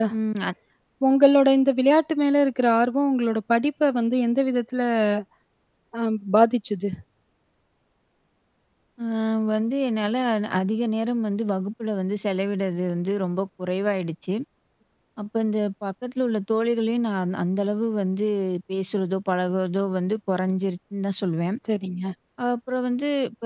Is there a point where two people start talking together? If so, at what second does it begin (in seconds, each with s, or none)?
none